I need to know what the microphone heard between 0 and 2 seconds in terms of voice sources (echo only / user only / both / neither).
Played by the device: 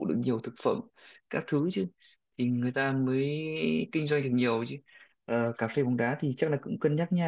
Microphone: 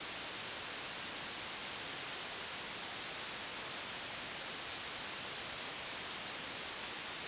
neither